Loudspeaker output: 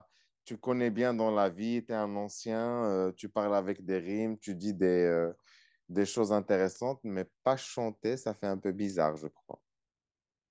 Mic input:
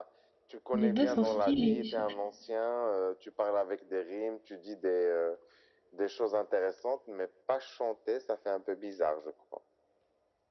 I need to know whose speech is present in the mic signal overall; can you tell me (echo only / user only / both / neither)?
both